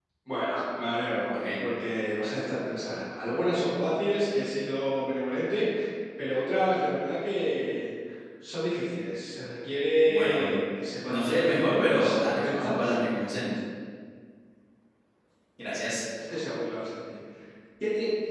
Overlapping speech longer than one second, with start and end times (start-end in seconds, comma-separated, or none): 11.1-12.9